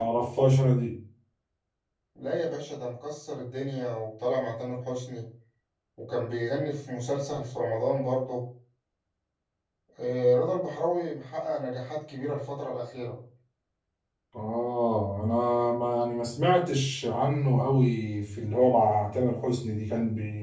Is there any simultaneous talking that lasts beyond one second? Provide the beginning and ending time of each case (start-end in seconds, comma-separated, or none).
none